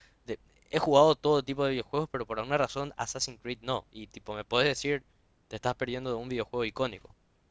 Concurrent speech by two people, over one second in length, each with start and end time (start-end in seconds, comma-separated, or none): none